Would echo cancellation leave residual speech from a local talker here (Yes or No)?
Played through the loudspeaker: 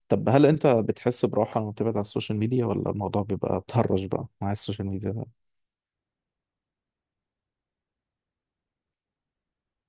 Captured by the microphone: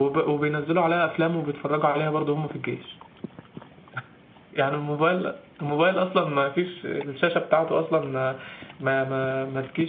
Yes